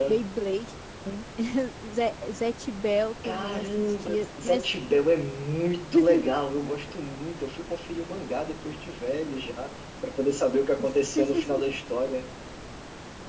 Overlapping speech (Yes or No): Yes